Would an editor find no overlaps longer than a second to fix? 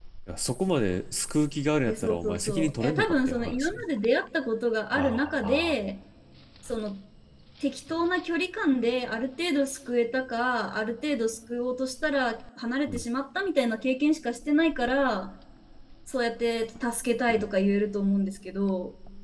No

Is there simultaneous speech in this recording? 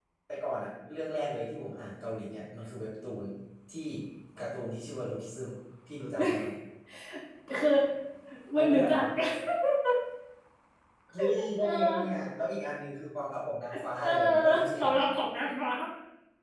Yes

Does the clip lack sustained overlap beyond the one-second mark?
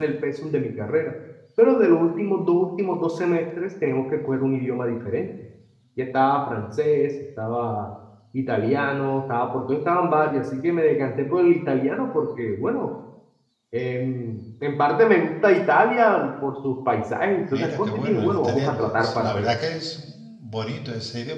No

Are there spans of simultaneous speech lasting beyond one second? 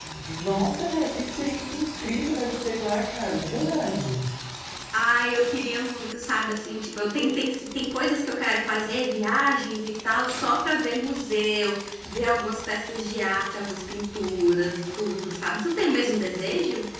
No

